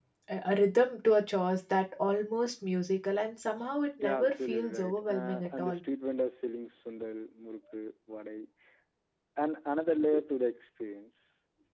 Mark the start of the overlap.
4.0 s

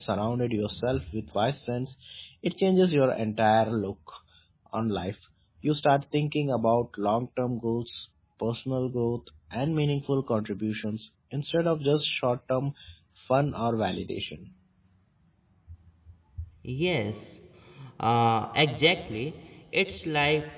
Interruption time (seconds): none

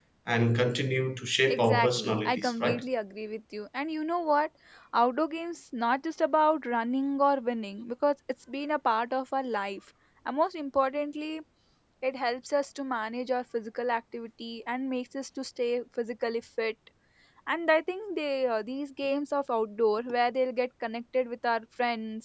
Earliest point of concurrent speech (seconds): 1.5 s

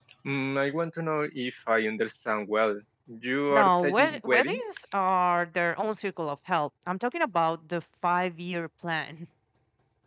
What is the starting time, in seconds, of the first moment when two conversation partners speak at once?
3.5 s

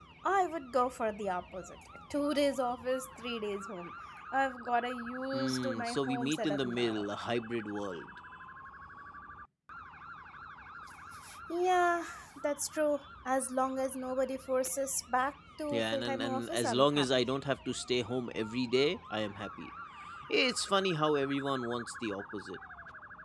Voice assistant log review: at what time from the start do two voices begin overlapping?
5.3 s

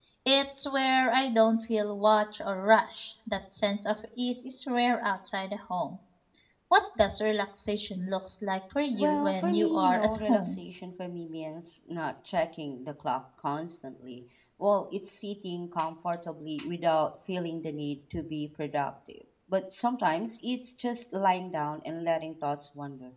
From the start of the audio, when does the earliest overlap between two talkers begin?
8.9 s

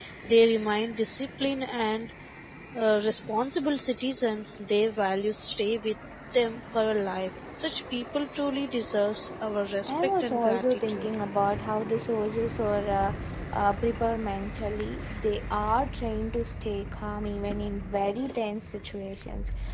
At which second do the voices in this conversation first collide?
9.8 s

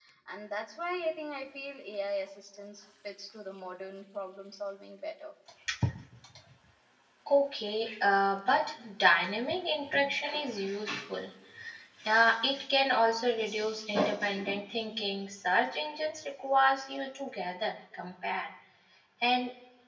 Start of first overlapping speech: none

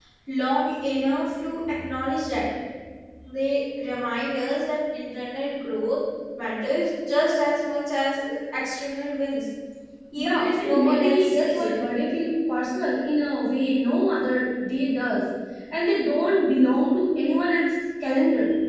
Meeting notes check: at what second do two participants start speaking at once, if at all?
10.2 s

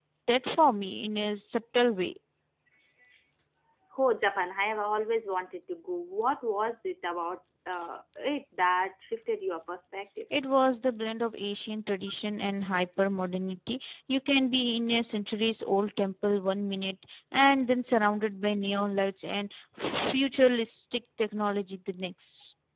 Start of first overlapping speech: none

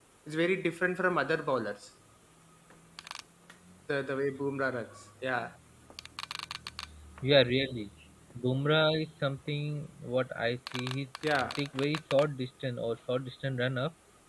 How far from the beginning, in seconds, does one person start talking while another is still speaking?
none

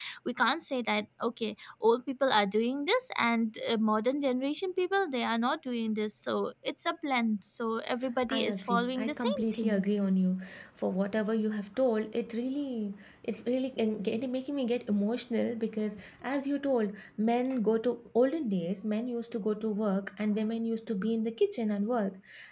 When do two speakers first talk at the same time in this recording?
8.2 s

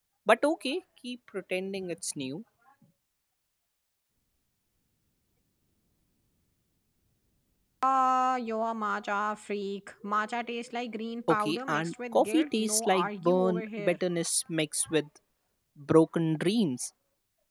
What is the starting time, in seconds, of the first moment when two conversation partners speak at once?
11.3 s

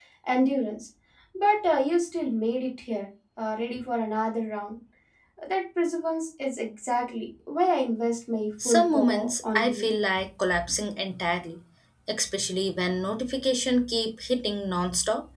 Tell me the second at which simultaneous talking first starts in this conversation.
8.6 s

